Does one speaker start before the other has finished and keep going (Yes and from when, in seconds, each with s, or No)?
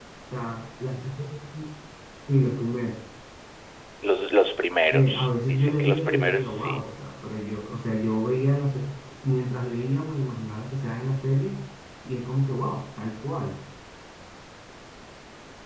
Yes, from 4.9 s